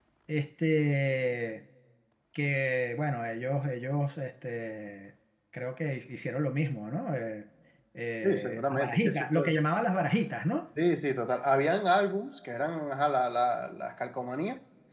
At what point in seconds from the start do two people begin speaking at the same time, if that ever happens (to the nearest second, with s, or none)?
8 s